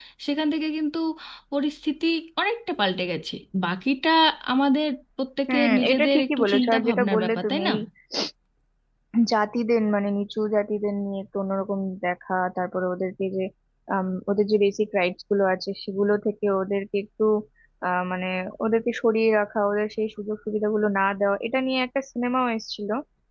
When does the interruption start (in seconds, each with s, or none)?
5.5 s